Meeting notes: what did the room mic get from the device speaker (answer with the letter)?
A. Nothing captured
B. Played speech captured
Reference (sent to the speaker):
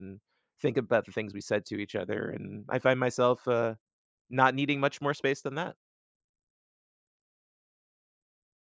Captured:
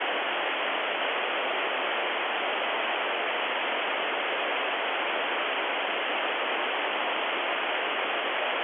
A